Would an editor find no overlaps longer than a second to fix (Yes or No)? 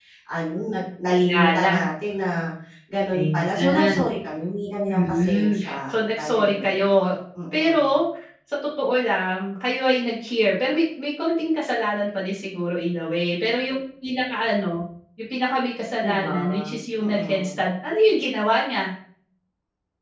No